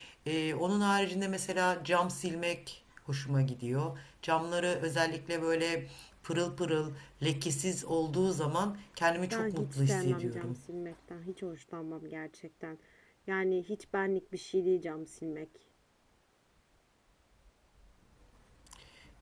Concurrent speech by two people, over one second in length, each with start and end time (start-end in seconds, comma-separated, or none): 9.3-10.5